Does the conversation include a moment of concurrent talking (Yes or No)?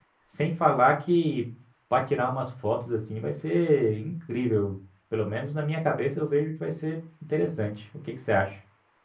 No